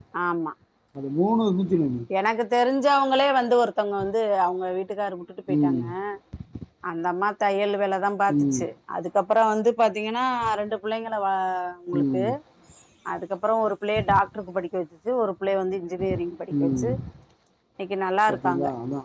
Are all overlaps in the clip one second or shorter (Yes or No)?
Yes